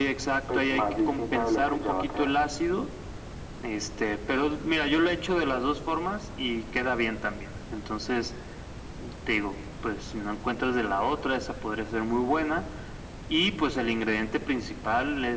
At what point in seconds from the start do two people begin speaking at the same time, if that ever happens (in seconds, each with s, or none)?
0.5 s